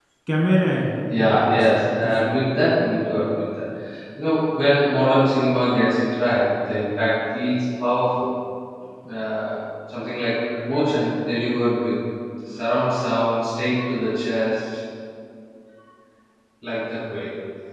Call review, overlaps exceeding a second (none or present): present